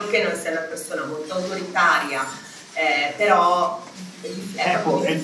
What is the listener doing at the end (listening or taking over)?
taking over